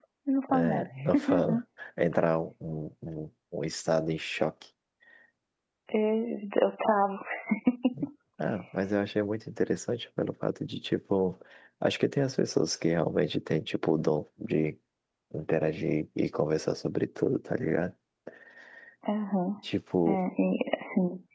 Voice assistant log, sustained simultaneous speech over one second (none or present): none